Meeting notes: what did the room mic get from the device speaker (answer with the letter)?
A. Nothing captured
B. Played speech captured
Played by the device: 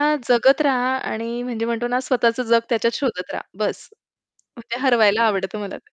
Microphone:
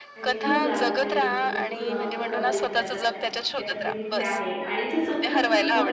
B